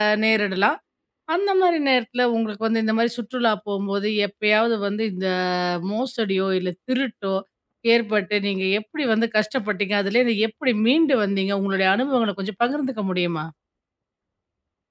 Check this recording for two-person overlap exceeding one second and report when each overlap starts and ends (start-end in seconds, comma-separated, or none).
none